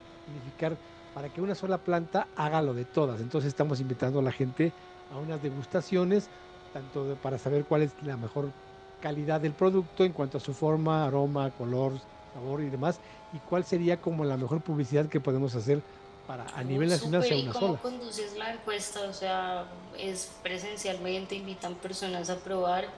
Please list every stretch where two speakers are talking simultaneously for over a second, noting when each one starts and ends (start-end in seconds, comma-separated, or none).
16.6-17.8